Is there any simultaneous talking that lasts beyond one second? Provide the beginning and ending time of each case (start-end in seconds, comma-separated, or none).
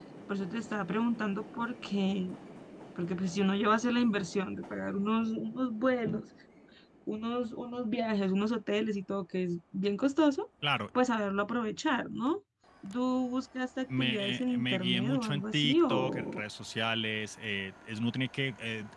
14.0-16.4